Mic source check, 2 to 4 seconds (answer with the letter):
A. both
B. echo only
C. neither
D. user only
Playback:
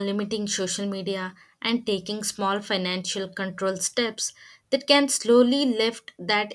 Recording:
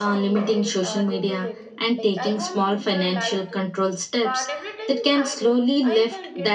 A